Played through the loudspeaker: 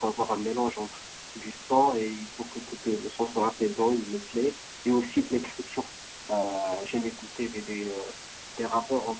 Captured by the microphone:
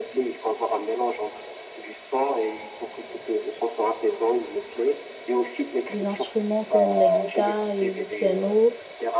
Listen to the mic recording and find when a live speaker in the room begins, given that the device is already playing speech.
5.9 s

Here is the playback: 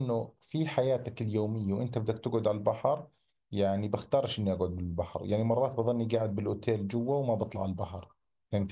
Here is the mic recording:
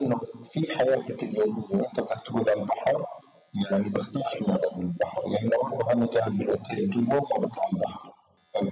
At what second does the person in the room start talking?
none

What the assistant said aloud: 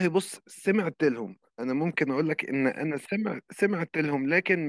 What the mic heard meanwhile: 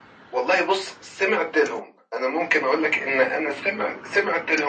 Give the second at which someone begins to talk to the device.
none

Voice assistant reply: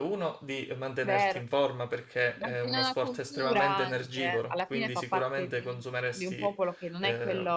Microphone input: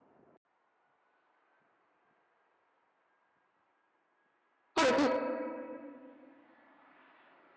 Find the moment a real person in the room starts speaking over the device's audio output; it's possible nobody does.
4.8 s

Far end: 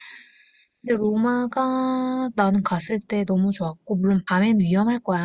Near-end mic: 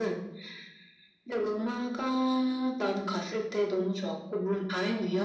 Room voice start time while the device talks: none

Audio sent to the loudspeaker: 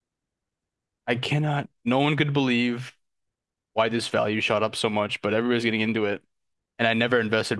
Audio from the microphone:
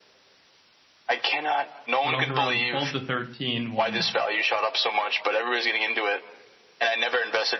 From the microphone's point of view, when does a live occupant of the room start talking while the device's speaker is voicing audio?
2.0 s

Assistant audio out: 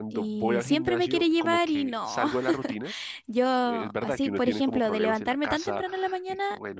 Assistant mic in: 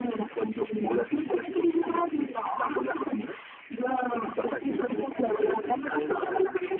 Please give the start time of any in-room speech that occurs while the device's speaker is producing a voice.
5.2 s

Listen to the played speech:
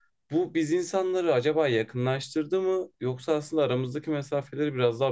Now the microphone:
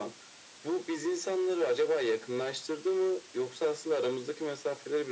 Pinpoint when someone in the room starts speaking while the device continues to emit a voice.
none

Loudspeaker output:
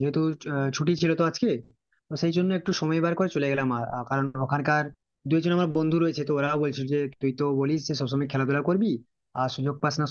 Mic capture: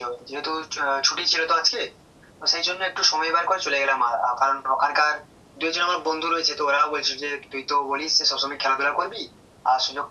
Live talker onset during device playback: none

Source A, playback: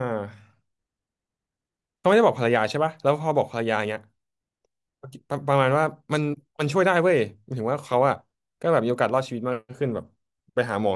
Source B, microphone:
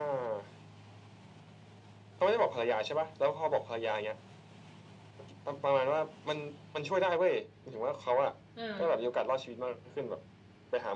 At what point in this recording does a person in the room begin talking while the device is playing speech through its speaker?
8.5 s

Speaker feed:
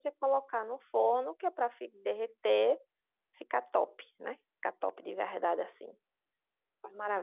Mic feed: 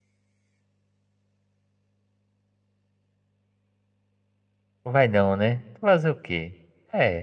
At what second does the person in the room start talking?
4.8 s

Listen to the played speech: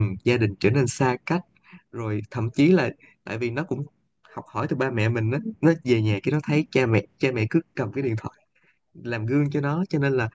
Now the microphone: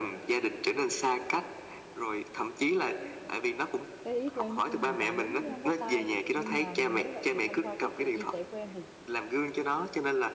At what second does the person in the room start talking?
4.0 s

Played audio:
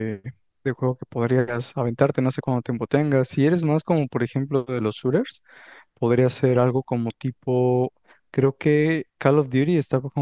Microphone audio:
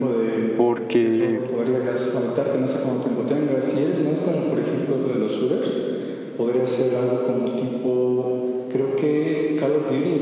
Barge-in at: 0.6 s

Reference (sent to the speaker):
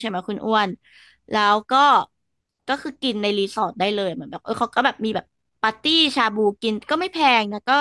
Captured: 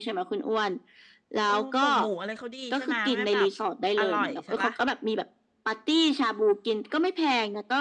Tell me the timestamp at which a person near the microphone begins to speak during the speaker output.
1.4 s

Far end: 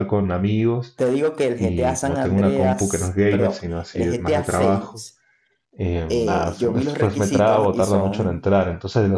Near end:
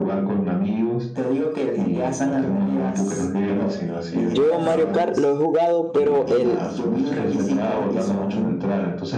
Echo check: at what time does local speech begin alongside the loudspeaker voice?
4.2 s

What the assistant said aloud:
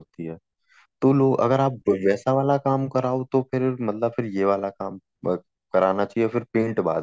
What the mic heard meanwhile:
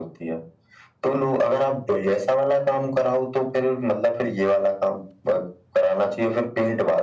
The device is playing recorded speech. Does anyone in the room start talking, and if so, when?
none

